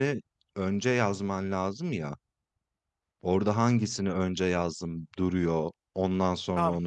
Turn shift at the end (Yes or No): Yes